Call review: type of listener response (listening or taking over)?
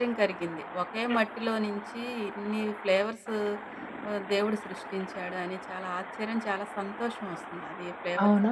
taking over